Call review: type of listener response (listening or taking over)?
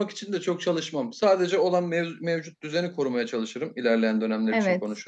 listening